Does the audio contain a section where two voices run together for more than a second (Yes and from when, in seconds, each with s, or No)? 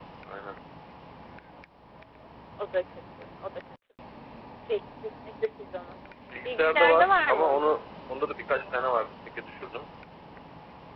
Yes, from 6.4 s